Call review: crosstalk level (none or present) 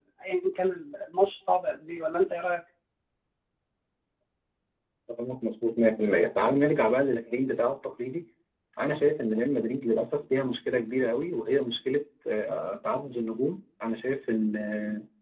none